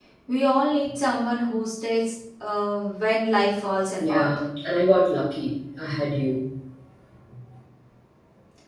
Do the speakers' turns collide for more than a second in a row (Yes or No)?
No